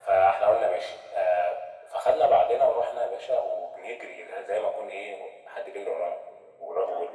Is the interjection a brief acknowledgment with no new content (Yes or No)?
Yes